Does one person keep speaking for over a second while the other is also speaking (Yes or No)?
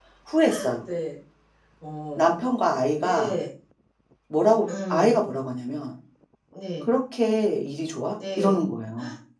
No